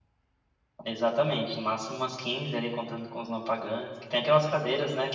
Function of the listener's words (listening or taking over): listening